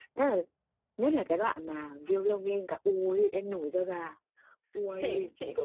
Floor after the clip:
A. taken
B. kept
A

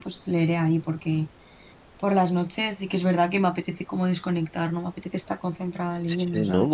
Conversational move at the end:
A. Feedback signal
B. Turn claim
B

